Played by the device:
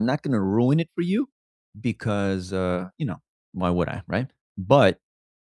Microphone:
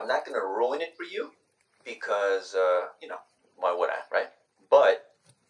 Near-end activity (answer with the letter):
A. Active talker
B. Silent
B